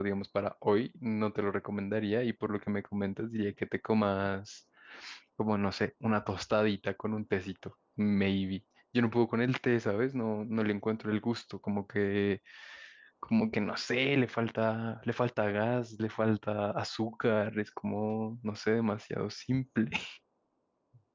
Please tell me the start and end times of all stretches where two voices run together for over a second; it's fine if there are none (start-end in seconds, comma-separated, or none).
none